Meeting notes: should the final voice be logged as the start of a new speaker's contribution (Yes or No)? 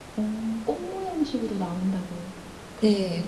Yes